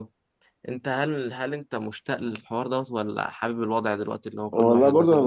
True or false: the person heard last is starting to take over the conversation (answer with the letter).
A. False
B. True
B